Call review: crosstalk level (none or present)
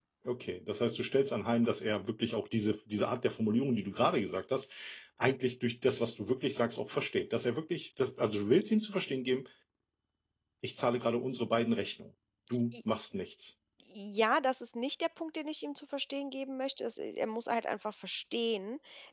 none